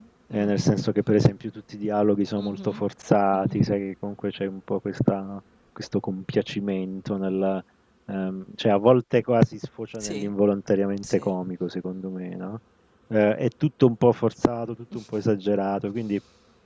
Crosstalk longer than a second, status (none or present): none